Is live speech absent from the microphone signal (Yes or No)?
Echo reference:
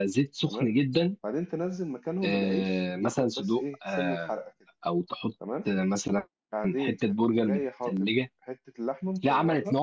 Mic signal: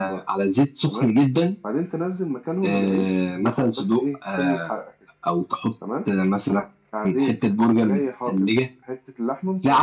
Yes